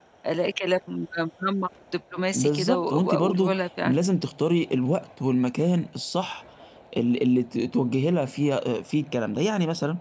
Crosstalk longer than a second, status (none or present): present